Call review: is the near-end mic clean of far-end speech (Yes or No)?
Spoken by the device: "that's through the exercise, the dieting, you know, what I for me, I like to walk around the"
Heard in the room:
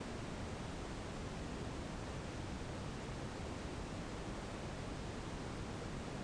Yes